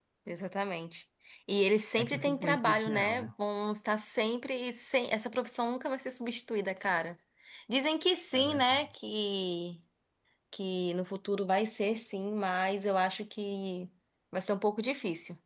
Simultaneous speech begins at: 2.0 s

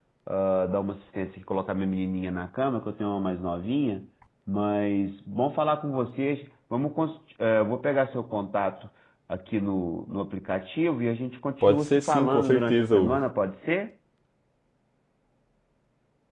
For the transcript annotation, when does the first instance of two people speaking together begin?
11.6 s

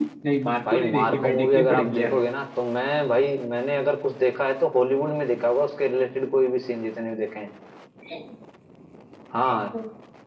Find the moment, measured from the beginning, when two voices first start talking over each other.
0.7 s

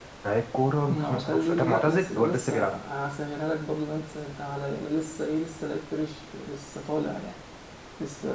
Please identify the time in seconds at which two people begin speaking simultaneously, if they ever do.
0.9 s

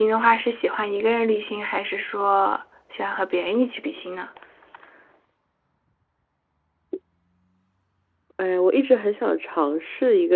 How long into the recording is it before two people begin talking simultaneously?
none

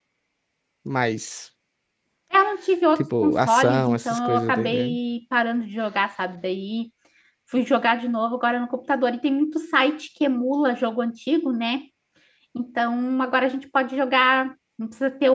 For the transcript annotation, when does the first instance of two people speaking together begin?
3.0 s

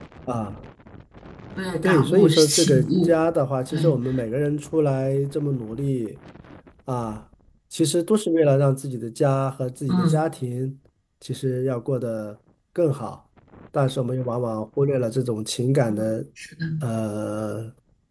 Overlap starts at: 1.8 s

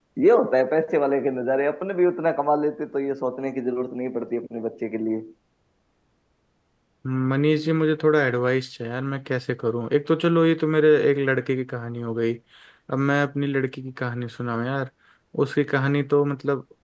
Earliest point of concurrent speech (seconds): none

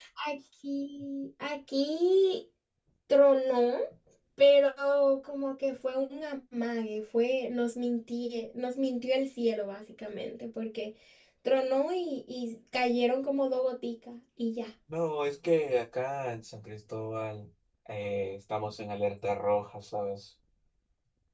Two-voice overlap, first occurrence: none

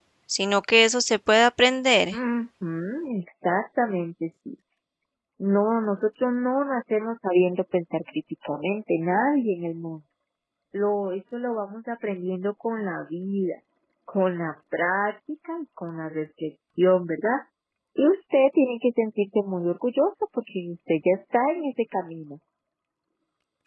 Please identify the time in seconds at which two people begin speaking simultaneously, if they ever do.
none

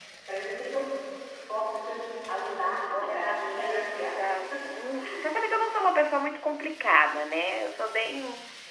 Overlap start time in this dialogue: 2.9 s

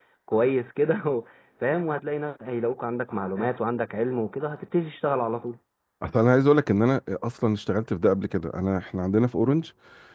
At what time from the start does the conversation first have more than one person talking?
none

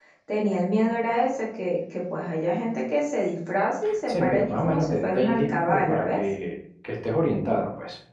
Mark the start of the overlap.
3.9 s

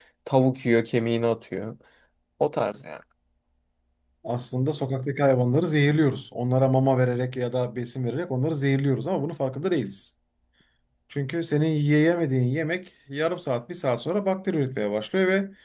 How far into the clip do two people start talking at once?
none

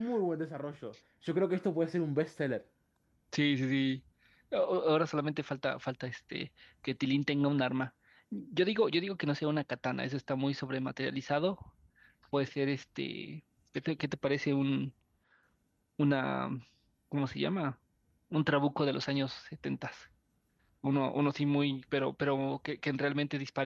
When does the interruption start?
none

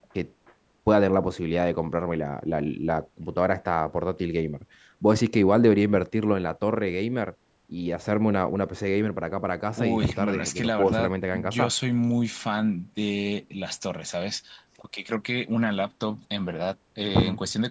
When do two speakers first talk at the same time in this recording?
9.8 s

